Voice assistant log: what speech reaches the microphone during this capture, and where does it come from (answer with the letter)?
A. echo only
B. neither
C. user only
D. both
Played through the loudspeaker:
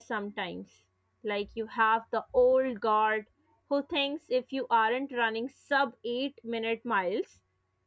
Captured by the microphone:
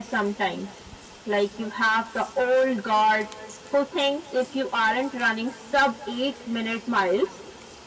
A